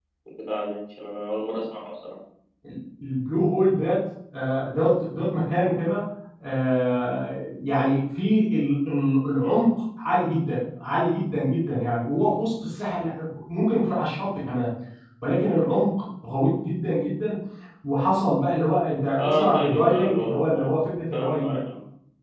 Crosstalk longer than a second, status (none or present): present